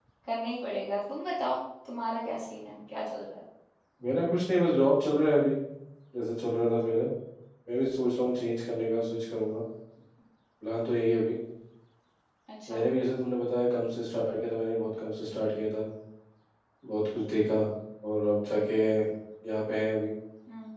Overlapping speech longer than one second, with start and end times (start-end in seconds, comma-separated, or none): none